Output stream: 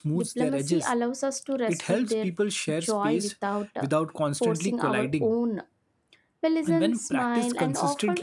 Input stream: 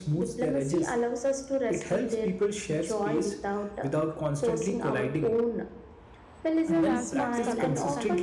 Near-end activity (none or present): present